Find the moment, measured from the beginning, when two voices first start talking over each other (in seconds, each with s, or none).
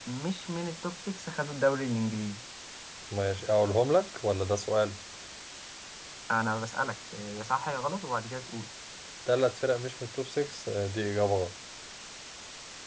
none